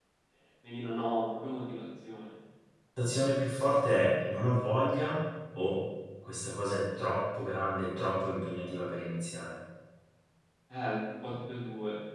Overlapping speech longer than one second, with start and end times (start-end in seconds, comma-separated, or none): none